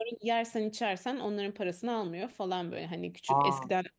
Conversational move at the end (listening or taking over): listening